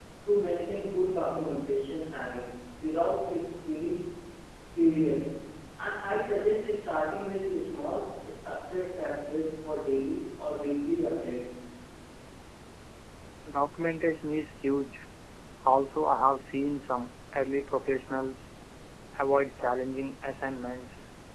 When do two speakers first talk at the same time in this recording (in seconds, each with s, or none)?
none